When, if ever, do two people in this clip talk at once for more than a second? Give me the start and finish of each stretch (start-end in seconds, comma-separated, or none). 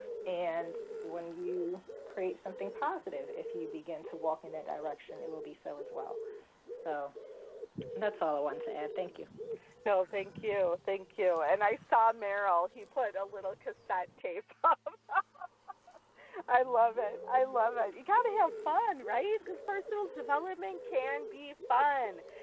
none